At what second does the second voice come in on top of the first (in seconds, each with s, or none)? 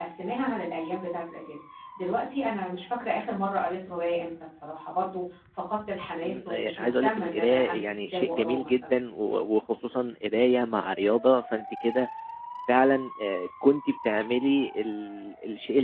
6.2 s